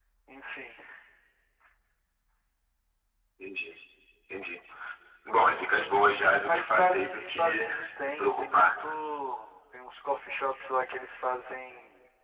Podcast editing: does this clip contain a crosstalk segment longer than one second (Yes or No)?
Yes